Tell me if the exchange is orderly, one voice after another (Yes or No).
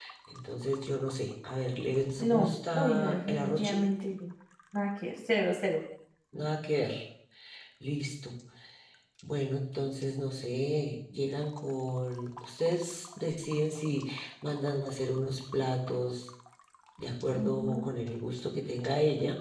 No